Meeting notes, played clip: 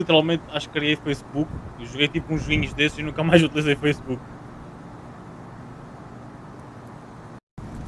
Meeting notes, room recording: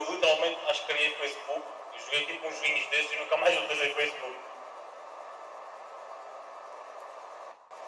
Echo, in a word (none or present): present